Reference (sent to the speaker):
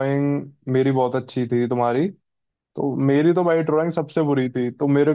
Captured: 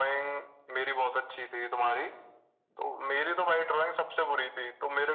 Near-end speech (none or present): none